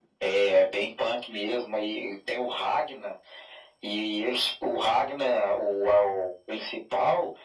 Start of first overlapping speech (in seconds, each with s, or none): none